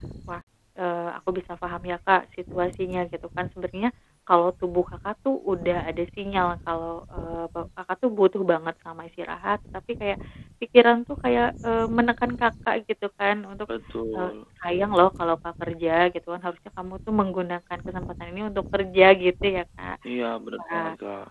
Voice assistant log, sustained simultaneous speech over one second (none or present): none